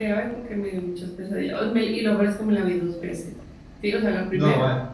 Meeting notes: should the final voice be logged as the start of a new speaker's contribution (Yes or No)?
No